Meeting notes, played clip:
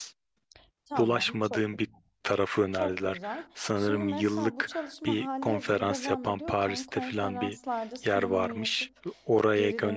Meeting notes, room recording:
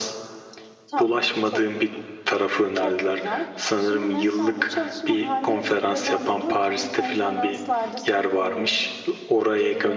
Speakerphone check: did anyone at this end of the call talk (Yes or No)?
No